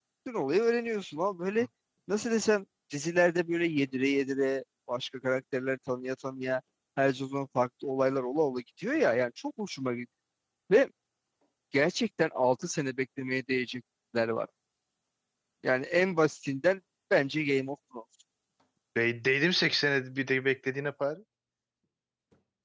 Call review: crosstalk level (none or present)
none